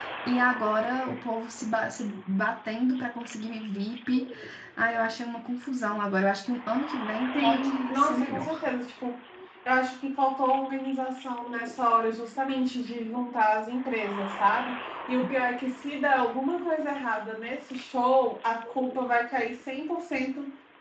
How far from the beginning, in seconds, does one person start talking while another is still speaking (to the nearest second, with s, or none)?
7 s